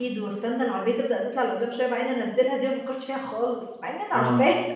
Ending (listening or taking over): taking over